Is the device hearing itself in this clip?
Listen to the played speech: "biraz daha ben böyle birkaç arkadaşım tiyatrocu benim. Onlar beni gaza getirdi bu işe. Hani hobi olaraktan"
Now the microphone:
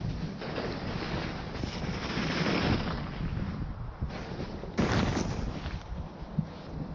No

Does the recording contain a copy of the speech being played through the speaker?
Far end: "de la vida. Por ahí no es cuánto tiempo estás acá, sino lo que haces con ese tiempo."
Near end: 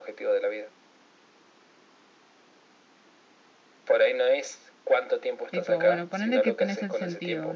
Yes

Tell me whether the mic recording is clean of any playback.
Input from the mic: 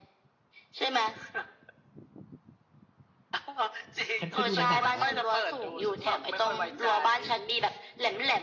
No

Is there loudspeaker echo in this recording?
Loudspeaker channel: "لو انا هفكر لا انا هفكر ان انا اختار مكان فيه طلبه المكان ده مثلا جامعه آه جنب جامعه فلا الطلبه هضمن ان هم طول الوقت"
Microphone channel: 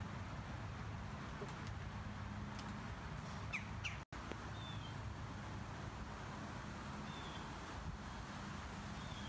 No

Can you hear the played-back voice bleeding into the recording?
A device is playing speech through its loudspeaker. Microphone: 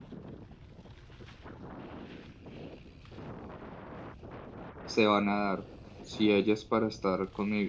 No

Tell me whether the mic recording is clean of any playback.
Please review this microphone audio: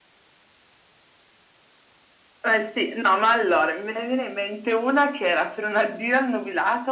No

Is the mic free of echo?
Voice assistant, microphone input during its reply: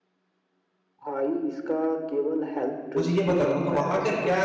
No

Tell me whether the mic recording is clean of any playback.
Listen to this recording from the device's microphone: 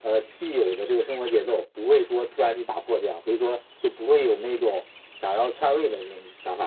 No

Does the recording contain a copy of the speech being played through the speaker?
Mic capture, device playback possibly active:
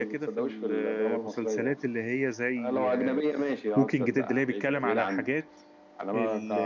Yes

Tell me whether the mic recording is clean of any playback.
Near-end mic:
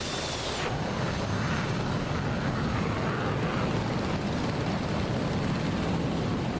Yes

